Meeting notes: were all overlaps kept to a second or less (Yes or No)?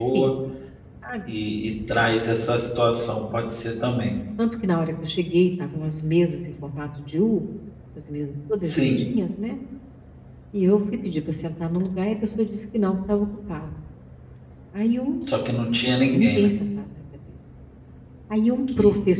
Yes